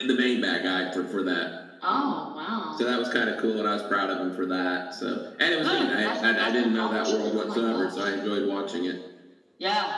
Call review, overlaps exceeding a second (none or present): present